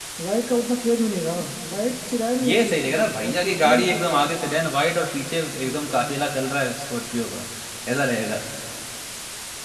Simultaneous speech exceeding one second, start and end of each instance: 2.4-4.3

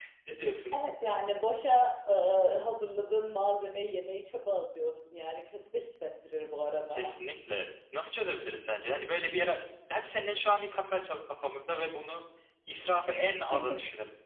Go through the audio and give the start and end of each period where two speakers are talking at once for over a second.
none

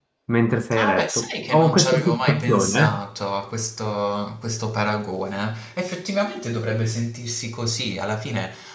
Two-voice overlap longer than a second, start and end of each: 0.8-3.0

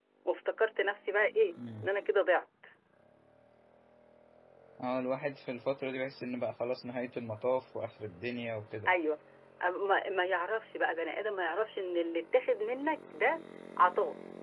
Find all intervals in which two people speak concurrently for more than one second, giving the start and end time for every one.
none

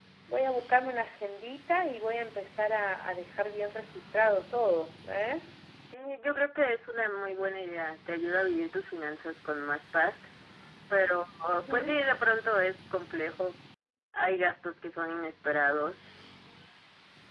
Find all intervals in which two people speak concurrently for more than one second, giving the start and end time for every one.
none

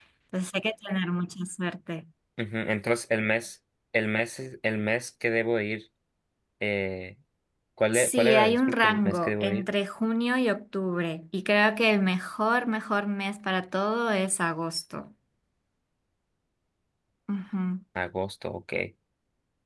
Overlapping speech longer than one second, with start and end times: 7.9-9.7

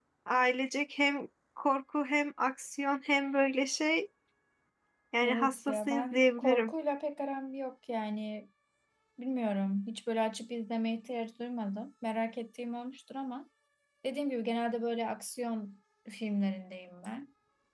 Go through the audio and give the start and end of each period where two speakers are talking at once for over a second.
5.2-6.7

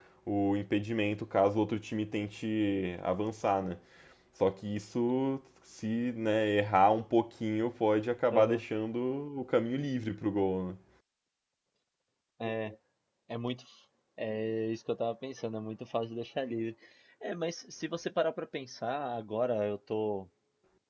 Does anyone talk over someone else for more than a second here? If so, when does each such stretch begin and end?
none

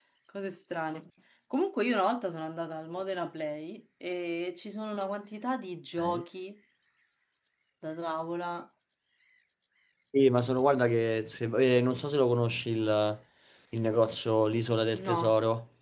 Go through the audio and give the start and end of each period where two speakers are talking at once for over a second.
none

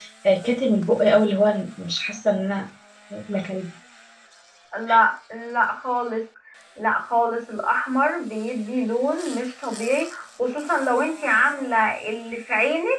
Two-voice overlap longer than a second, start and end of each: none

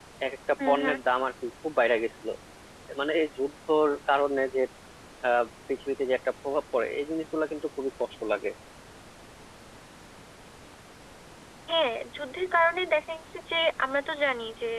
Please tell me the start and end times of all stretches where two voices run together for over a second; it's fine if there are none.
none

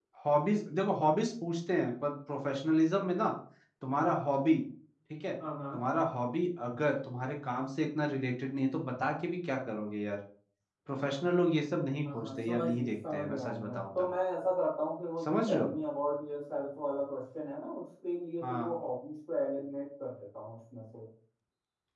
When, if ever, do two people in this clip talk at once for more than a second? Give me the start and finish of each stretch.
12.1-14.1

